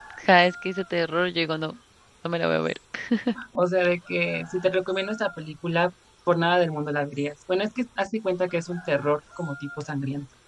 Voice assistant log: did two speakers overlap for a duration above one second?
No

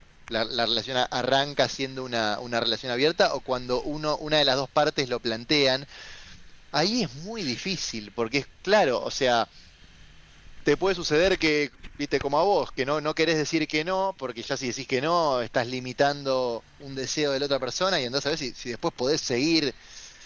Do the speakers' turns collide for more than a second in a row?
No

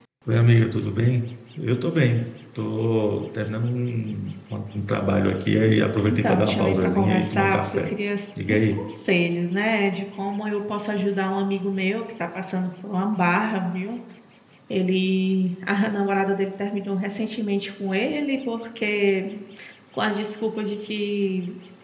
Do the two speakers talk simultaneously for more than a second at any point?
Yes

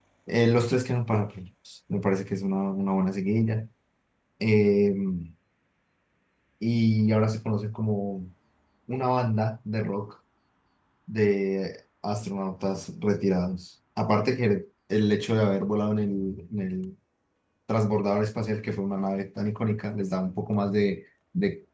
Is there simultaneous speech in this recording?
No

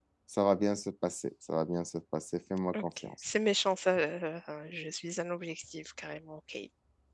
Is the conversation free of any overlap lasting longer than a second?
Yes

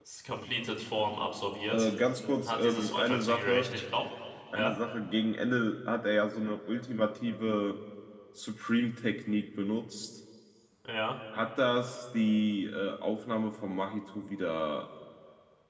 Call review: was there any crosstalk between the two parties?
Yes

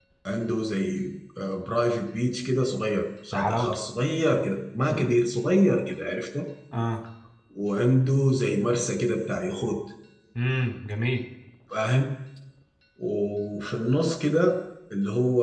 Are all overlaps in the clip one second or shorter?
Yes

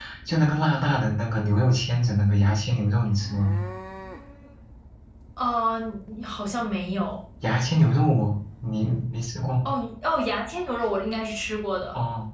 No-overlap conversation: Yes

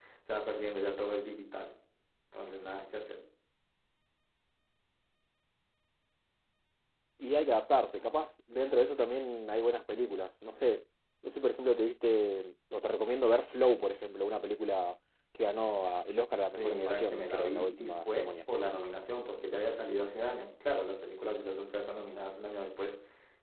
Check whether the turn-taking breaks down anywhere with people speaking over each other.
Yes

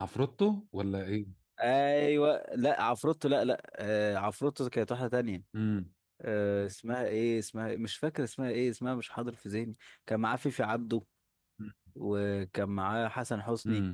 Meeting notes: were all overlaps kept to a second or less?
Yes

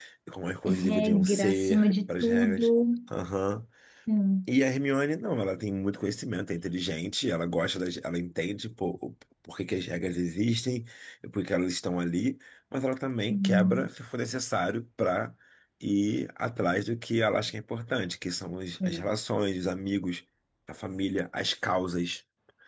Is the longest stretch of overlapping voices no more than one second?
No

